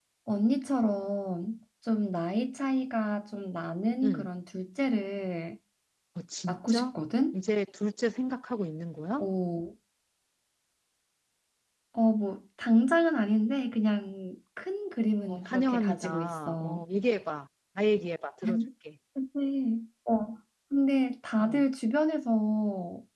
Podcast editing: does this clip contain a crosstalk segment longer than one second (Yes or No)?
Yes